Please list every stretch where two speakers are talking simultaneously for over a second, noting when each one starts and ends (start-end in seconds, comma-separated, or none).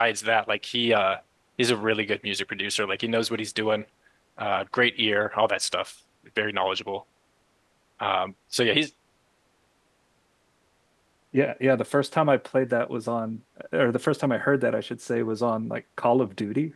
none